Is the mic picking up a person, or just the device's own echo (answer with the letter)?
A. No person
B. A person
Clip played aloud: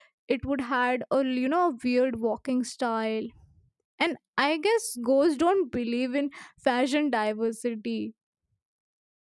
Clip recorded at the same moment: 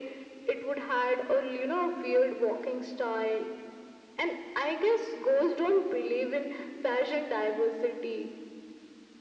A